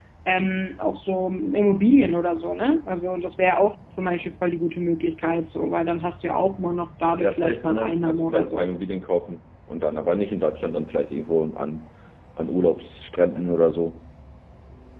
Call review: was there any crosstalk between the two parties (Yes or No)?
Yes